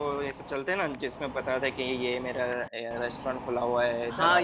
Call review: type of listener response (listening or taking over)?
taking over